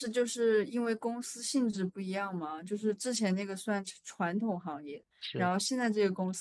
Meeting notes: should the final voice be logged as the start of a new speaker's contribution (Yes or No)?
No